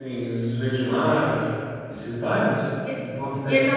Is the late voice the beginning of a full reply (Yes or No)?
Yes